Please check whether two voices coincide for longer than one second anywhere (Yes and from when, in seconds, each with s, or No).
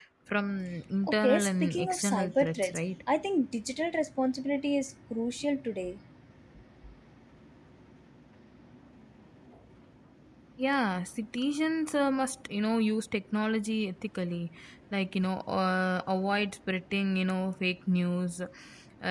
Yes, from 1.2 s